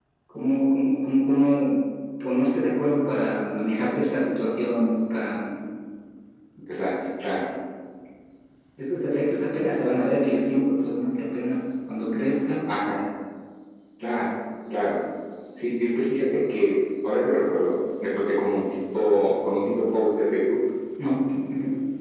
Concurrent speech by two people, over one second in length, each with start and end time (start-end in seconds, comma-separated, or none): none